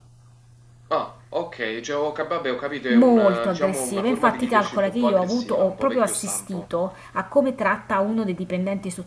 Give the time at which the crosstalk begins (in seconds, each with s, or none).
2.9 s